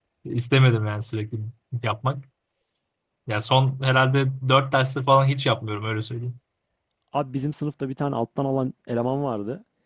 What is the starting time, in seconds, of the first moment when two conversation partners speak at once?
none

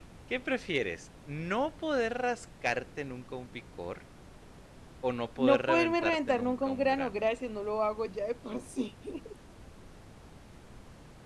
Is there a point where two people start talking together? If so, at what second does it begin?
5.5 s

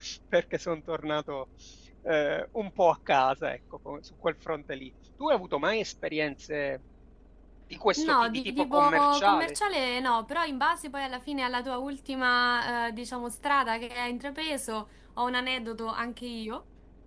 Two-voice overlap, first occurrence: 7.9 s

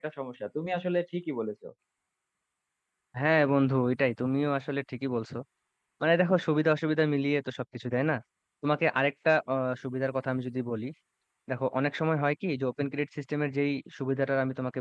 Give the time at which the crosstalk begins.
none

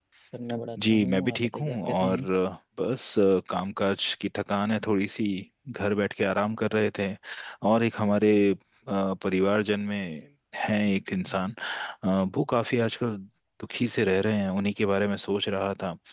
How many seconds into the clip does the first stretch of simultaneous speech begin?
0.8 s

